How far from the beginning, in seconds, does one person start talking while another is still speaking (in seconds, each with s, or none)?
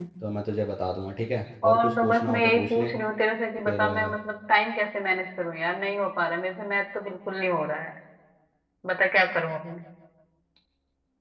1.6 s